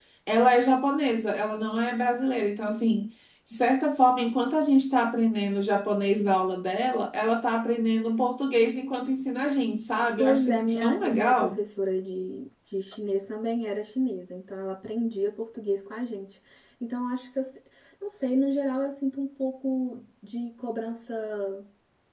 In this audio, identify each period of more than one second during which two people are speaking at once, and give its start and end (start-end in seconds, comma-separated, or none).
10.2-11.6